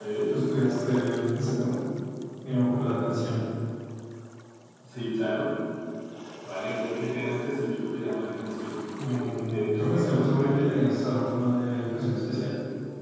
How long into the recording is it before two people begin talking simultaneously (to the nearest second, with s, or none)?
9 s